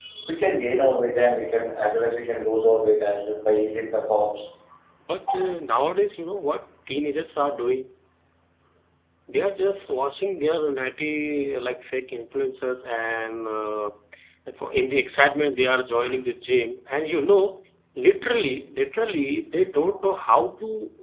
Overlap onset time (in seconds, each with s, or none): none